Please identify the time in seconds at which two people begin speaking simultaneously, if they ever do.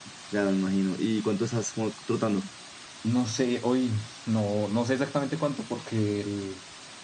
none

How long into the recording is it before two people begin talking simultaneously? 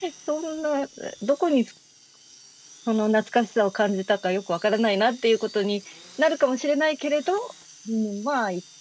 none

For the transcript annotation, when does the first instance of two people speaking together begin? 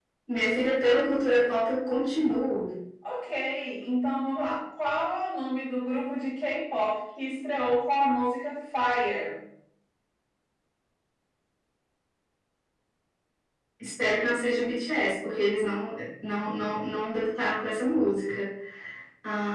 none

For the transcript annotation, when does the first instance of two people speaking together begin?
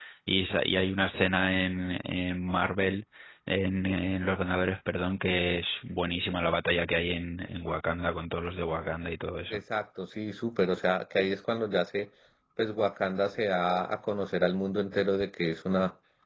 none

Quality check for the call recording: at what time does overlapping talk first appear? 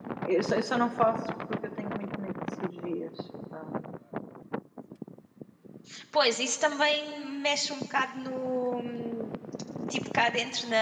none

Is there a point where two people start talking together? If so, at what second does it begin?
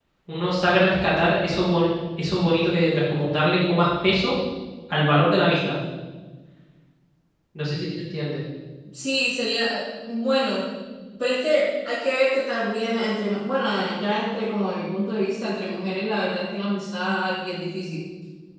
none

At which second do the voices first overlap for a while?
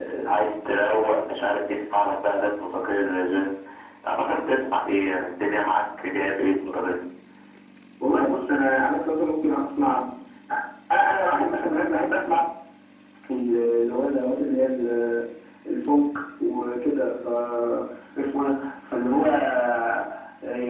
none

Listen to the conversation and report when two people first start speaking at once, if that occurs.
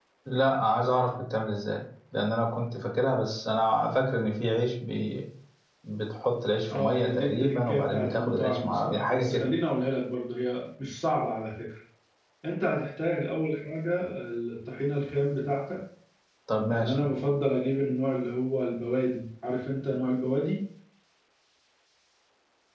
6.7 s

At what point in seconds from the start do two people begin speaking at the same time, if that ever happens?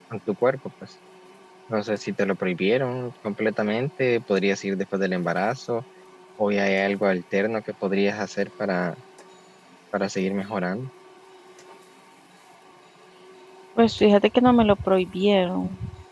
none

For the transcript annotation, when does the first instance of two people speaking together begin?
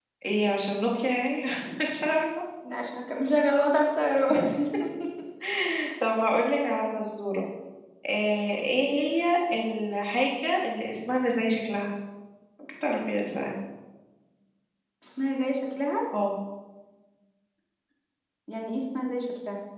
none

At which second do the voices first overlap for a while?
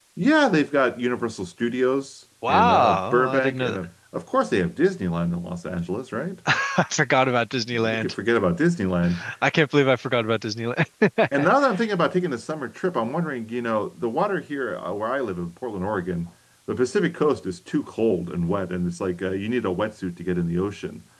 2.5 s

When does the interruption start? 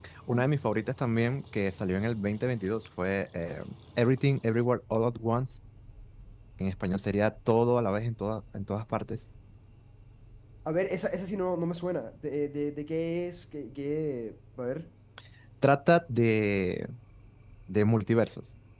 none

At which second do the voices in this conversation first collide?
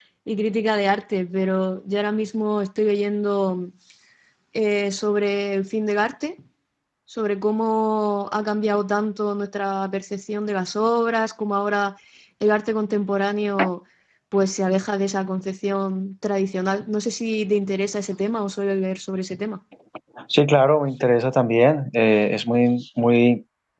none

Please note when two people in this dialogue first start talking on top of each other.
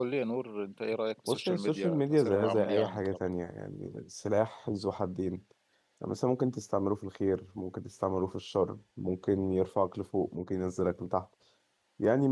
1.3 s

